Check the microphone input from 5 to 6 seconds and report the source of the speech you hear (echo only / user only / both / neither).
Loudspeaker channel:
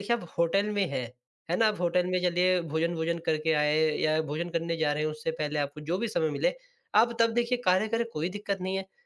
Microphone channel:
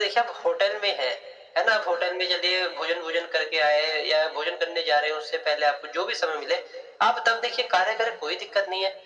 echo only